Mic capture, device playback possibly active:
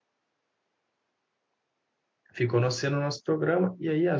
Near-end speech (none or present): present